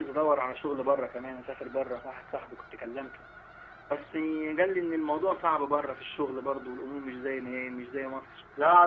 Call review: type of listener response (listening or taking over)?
taking over